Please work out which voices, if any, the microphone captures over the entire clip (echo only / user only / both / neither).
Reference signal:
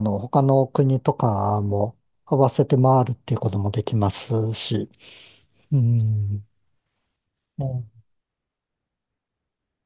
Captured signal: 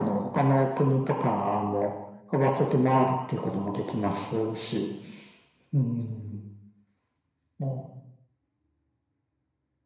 echo only